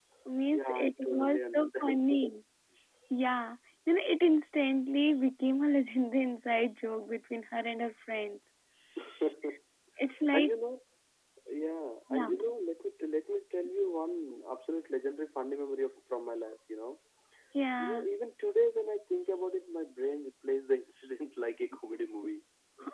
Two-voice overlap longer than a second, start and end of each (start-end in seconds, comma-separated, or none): 0.5-2.0